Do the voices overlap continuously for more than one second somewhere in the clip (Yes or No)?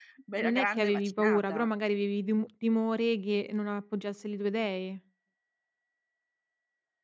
Yes